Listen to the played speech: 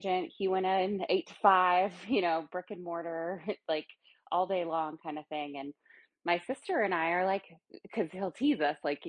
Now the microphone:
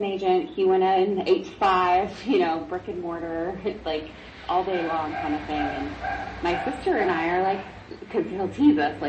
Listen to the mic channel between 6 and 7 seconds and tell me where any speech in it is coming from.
echo only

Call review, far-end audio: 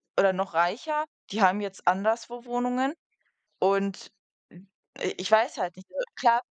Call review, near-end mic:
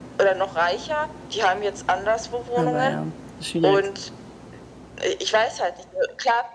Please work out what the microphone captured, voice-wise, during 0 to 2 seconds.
echo only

